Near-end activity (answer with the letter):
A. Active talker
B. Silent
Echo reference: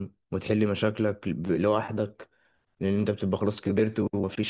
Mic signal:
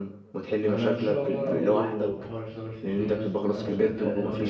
A